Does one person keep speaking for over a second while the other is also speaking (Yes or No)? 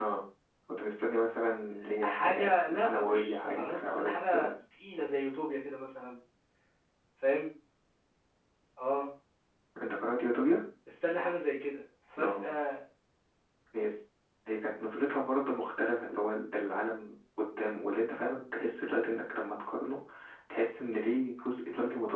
Yes